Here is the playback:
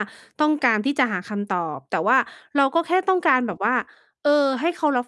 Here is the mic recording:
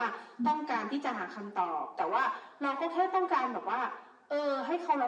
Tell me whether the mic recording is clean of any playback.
No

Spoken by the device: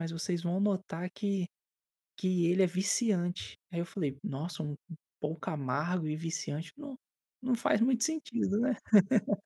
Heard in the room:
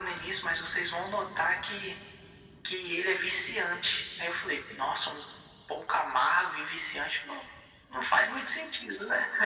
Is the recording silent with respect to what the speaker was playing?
No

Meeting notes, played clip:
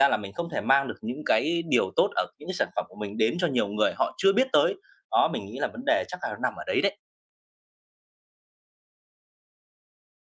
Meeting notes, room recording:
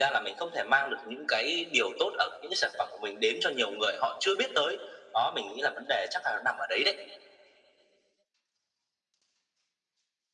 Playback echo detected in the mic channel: Yes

